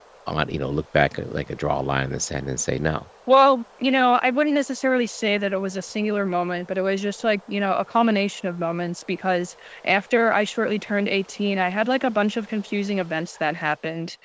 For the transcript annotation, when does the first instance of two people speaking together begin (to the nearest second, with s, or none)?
none